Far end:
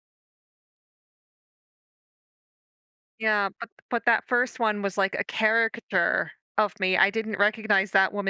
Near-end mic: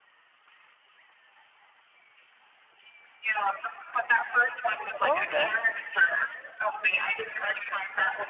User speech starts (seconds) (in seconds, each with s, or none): 5.0 s